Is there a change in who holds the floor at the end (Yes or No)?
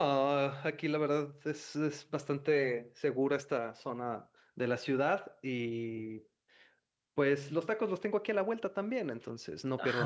Yes